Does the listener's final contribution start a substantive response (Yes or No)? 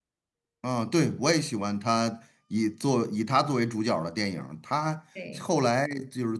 No